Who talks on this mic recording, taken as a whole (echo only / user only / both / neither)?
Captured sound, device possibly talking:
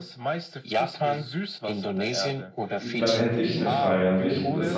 both